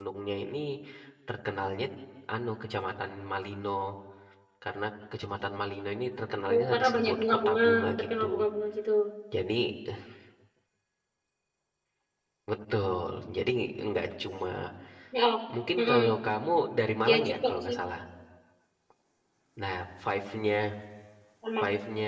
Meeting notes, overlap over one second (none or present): present